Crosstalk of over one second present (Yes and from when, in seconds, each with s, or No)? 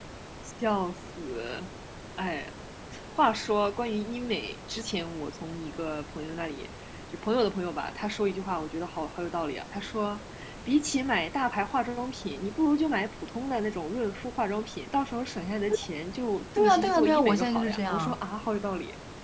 Yes, from 16.6 s